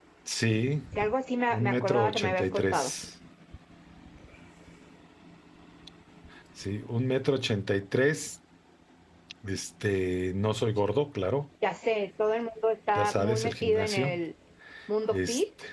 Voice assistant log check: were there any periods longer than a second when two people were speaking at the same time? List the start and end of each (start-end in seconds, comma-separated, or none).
1.5-2.9, 13.0-14.2